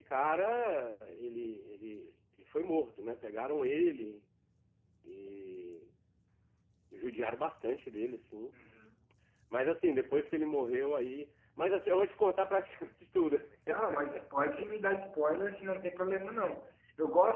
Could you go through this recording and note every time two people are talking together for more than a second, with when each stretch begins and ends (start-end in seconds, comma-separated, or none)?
none